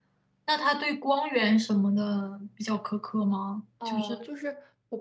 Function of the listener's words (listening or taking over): taking over